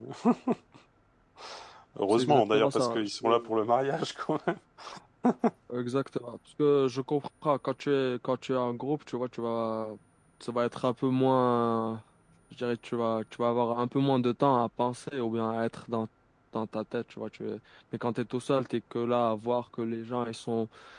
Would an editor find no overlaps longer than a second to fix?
No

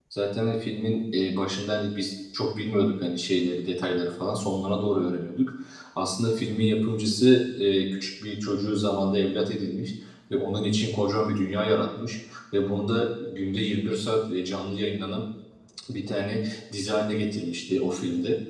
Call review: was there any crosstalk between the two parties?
No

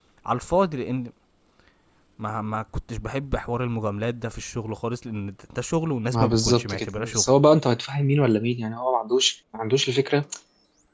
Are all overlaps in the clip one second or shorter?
No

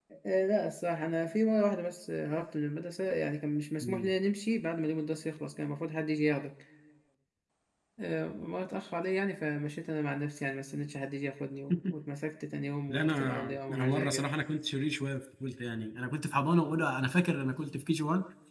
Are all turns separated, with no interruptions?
No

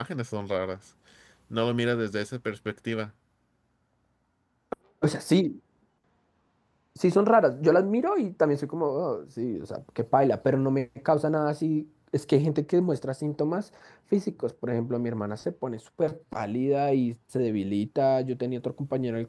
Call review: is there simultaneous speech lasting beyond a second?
No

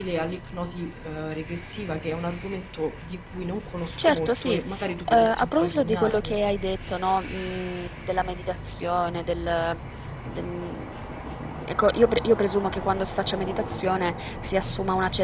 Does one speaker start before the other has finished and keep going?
Yes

